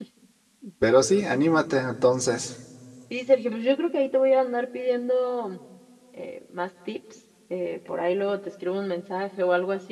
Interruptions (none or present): none